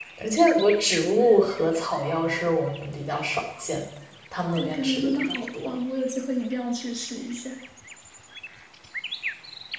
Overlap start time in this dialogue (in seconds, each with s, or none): 4.4 s